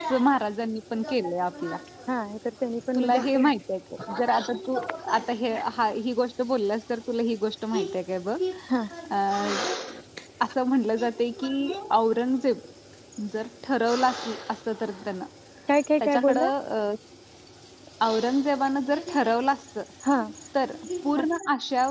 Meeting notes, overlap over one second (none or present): none